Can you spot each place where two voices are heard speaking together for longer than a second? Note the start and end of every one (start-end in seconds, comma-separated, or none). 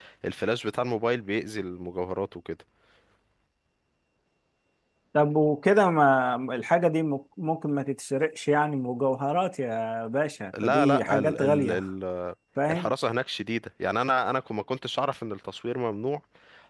10.6-11.9